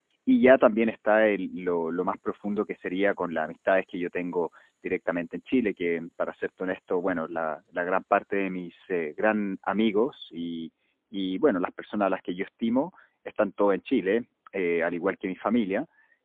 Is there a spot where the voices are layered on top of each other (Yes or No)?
No